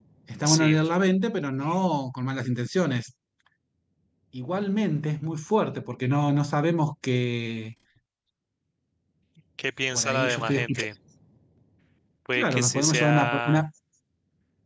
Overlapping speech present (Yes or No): Yes